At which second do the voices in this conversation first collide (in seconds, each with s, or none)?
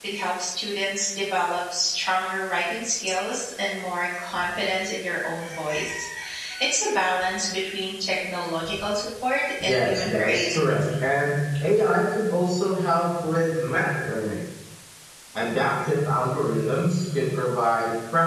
9.6 s